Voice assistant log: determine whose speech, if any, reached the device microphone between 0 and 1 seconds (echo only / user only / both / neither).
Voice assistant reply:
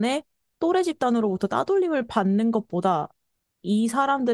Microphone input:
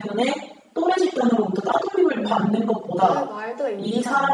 echo only